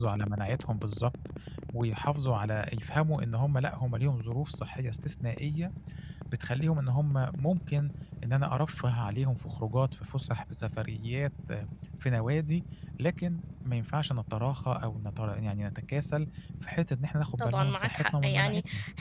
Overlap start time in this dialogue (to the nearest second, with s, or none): 17 s